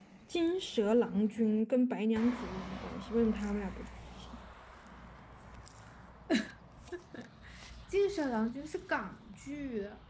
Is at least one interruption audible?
No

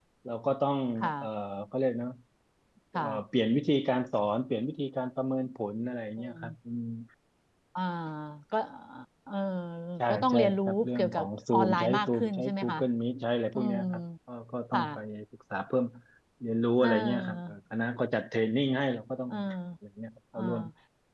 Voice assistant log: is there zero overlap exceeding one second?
No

